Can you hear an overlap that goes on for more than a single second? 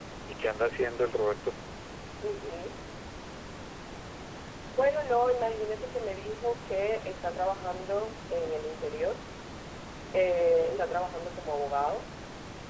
No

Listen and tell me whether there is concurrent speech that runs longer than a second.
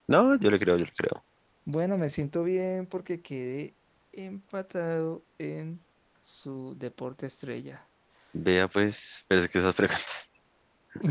No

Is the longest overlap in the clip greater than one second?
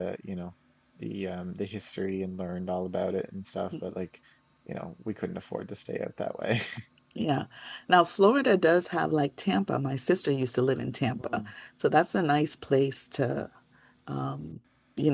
No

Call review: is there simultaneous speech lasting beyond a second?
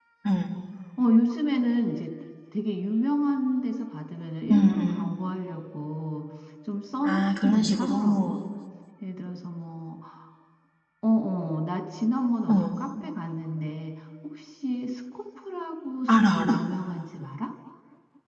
Yes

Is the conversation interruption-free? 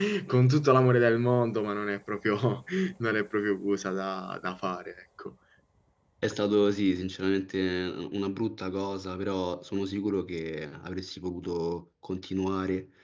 Yes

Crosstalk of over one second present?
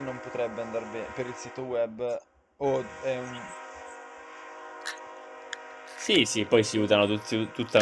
No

